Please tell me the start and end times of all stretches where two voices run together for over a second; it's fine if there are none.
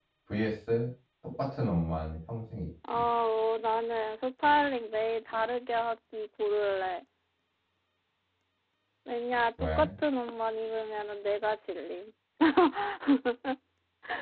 none

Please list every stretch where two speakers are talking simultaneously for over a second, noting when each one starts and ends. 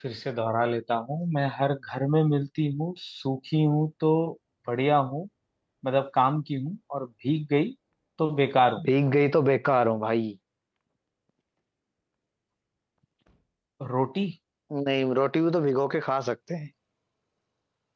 none

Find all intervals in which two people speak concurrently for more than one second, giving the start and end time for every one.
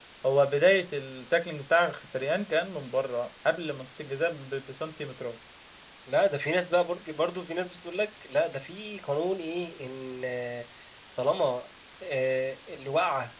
none

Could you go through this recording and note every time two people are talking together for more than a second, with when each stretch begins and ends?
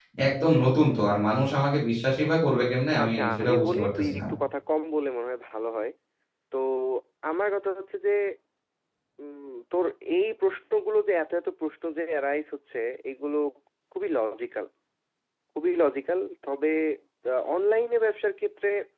3.0-4.2

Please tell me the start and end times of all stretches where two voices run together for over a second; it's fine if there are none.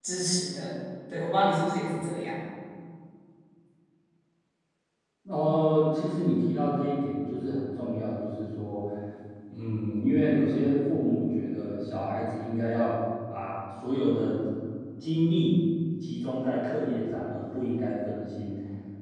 none

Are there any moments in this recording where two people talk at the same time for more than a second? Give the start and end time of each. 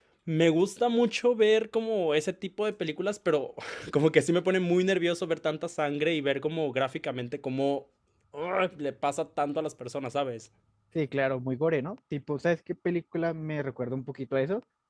none

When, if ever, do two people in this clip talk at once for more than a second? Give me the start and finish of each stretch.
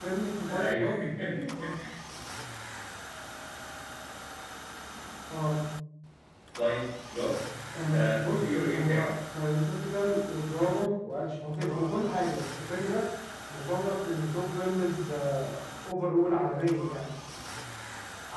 7.8-9.1

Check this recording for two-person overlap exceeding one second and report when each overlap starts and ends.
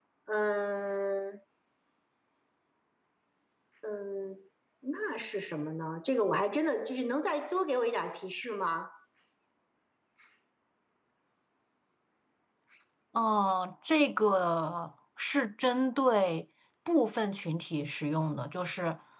none

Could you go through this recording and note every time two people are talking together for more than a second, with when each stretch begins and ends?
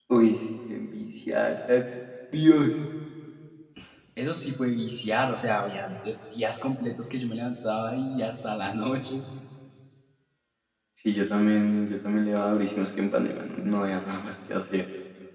none

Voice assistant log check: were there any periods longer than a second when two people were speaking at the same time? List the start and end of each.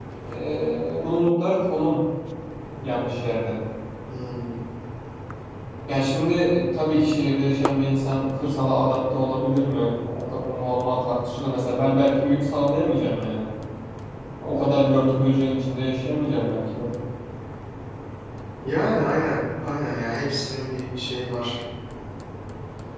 none

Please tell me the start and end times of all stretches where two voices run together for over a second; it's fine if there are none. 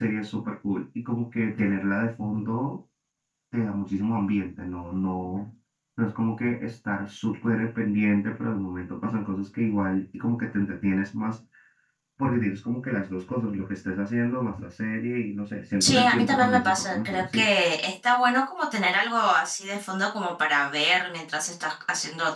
15.8-17.5

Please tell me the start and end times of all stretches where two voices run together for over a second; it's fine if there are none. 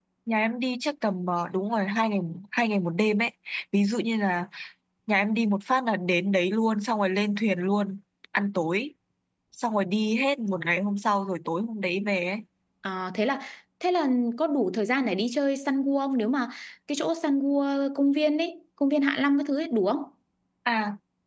none

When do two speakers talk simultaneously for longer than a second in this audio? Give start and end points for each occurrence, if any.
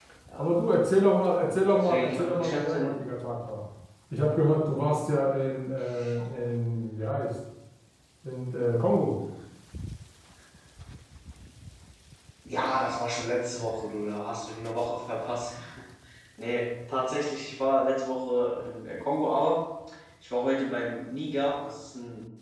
1.7-3.0

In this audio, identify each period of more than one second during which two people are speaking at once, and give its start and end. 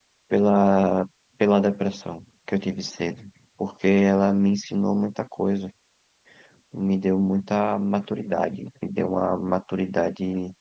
none

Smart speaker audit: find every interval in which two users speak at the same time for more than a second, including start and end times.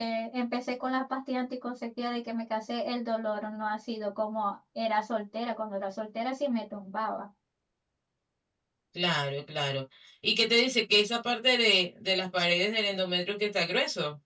none

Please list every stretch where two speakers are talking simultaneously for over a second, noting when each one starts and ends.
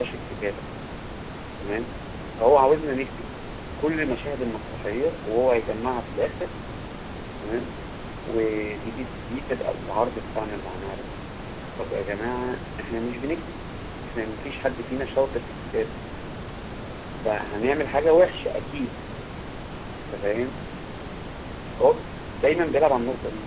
none

